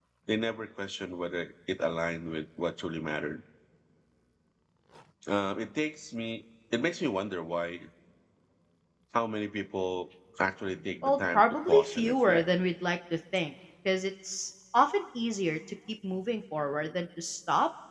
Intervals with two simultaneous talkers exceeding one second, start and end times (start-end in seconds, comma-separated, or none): 11.0-12.4